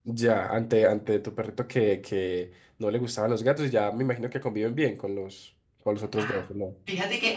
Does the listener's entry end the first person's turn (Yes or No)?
Yes